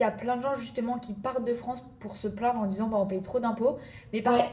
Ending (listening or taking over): listening